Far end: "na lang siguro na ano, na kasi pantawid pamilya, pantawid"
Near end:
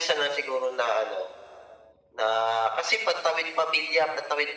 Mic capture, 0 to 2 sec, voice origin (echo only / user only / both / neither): echo only